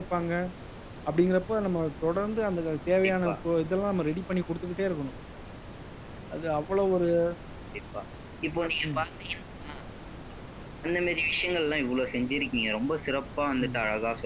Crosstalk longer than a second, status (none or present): none